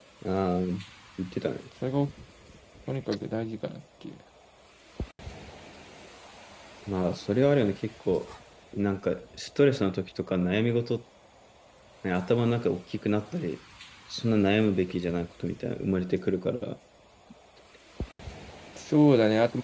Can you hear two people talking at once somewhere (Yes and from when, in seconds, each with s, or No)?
No